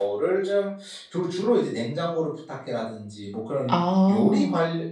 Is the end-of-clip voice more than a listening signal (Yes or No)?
No